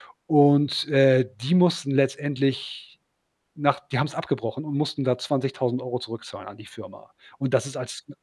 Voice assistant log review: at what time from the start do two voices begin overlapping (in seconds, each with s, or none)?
none